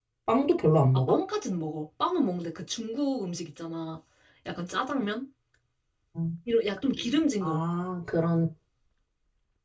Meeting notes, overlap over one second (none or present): none